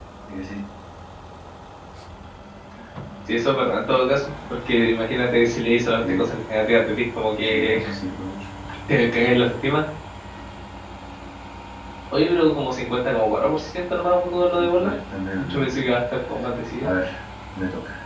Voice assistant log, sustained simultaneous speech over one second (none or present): none